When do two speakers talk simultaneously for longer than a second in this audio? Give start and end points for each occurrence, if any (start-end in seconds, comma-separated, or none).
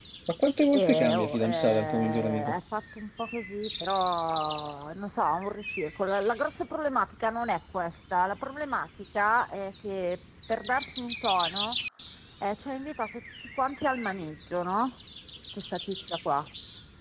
0.7-2.6